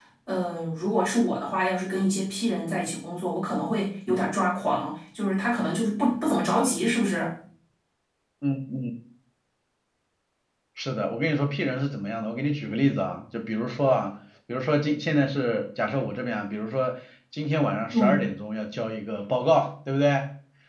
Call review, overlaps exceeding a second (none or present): none